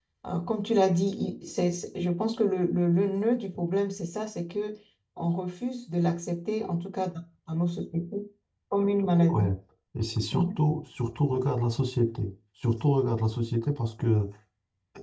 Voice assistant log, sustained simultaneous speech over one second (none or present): none